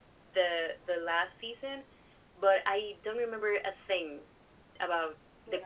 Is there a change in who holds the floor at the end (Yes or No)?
No